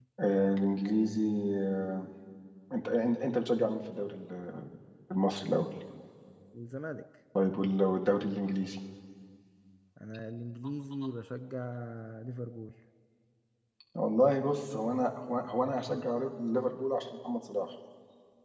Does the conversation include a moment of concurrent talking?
No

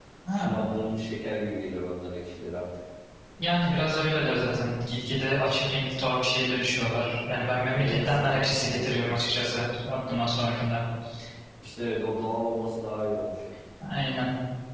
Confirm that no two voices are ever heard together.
No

